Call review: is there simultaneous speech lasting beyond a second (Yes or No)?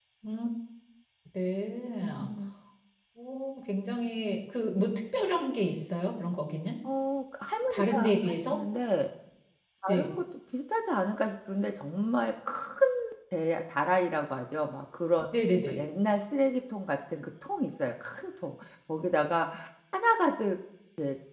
No